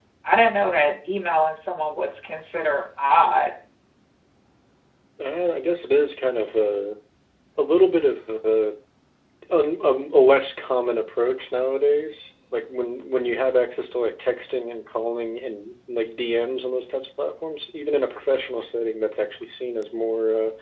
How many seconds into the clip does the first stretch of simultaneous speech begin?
none

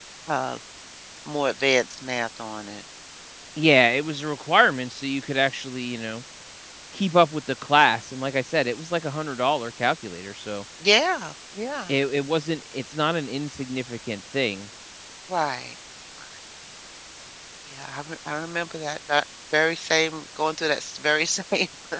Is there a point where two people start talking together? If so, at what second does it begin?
none

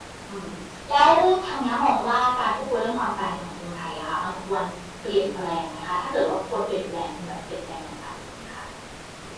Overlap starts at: none

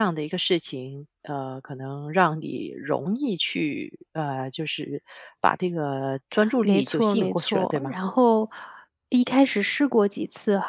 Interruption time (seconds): 6.6 s

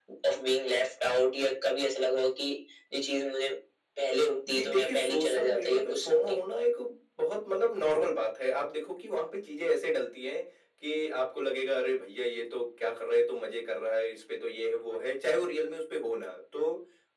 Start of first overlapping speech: 4.5 s

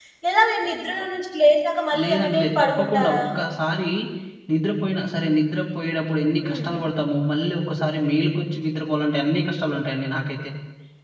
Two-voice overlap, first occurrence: 1.9 s

